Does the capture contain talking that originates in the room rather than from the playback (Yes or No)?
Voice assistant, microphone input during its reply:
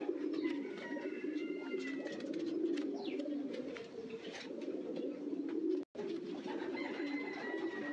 No